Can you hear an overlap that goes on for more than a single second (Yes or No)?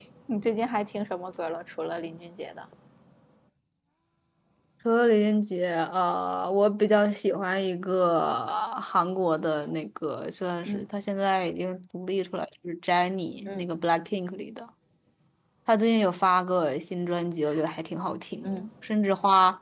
No